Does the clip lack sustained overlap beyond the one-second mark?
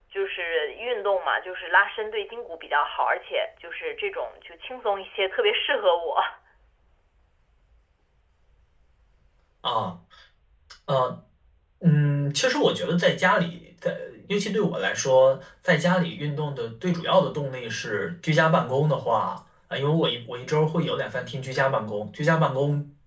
Yes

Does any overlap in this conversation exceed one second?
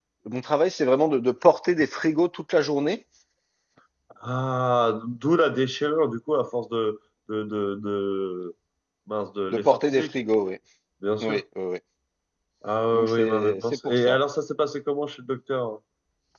Yes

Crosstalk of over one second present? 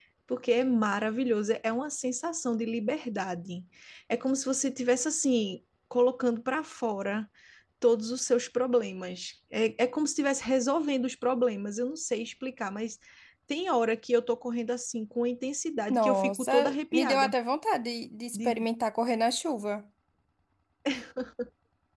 Yes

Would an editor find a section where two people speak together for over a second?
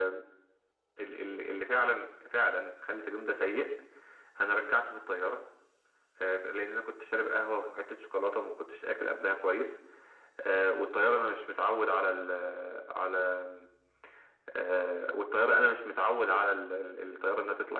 No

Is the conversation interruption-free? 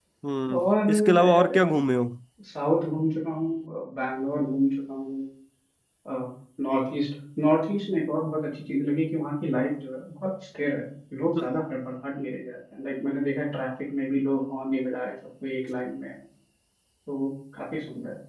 No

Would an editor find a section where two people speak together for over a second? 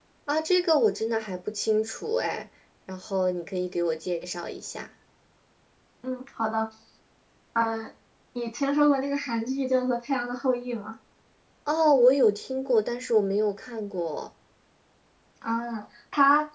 No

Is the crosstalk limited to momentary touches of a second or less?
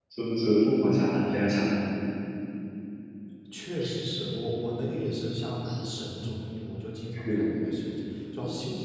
Yes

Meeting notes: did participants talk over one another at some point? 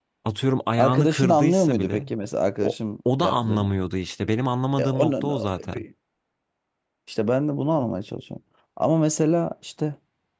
Yes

